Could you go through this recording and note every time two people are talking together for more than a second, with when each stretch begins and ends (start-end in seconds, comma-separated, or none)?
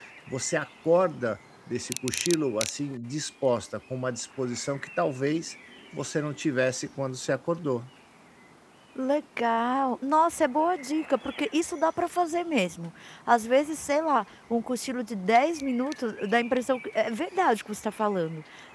none